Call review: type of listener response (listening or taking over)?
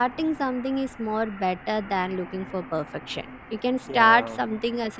listening